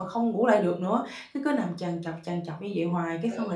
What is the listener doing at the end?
listening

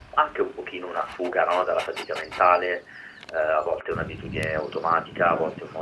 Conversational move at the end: listening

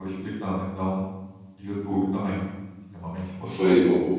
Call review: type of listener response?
taking over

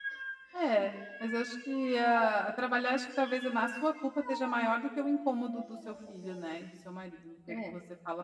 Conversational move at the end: listening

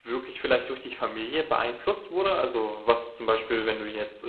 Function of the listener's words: listening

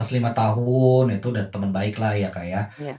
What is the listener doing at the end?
listening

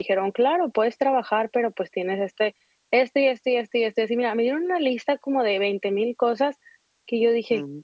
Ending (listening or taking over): listening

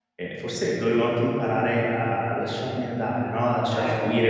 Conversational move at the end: listening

